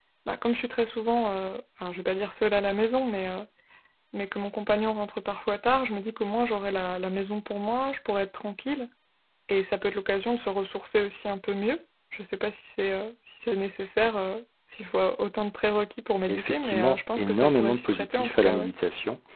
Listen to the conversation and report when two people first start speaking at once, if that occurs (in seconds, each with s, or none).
16.3 s